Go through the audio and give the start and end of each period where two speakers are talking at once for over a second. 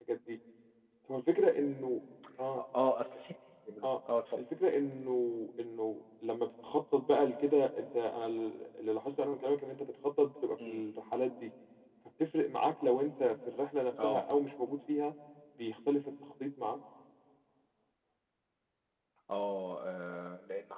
none

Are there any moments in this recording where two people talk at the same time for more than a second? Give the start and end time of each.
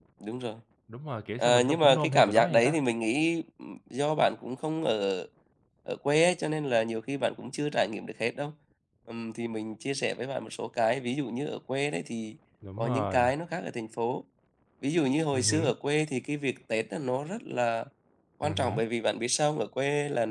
1.4-2.8

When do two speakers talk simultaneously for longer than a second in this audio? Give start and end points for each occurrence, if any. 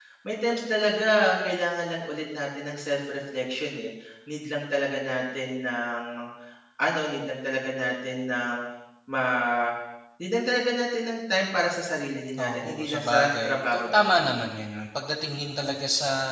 12.4-14.2

